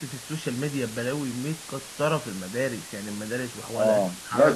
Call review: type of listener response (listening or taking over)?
taking over